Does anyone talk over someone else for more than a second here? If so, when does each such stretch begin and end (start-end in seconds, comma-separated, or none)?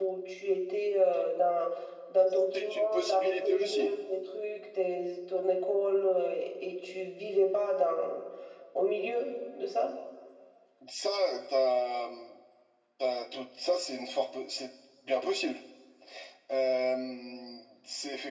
2.5-3.9